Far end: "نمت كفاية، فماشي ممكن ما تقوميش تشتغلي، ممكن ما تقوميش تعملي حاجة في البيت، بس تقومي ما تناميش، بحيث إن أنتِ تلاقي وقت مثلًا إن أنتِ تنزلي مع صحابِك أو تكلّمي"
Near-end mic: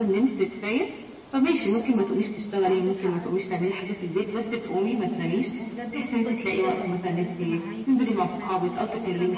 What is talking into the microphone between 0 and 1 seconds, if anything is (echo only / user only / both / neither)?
echo only